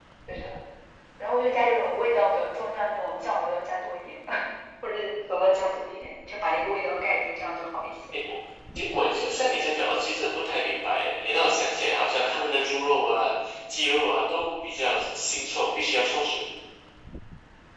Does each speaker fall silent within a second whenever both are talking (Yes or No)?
Yes